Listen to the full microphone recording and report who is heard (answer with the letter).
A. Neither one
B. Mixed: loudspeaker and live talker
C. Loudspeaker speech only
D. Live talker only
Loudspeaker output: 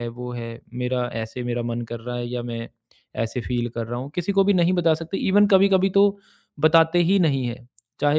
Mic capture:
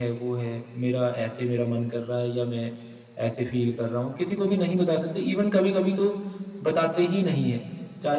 C